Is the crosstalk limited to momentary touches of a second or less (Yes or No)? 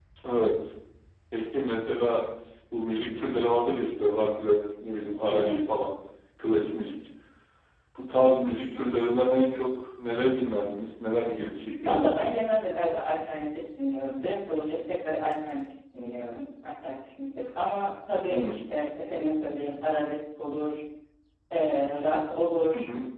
Yes